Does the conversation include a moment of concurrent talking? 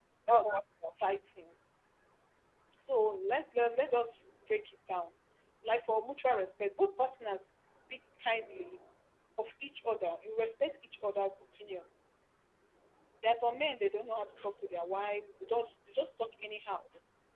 No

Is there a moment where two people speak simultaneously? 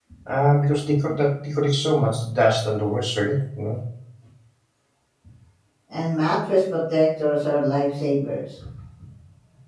No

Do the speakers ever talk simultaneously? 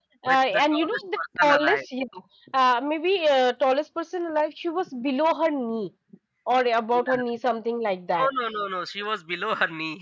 Yes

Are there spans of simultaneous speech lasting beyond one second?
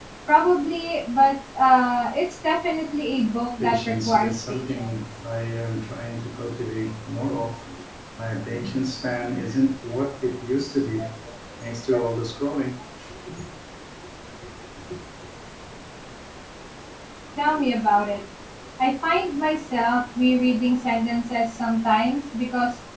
Yes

